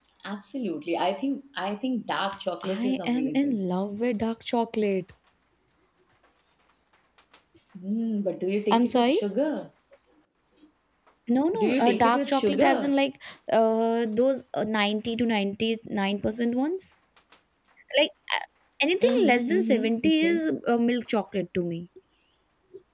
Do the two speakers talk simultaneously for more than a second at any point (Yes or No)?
Yes